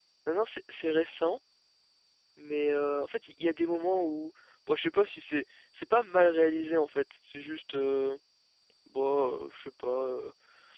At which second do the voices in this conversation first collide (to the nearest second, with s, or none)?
none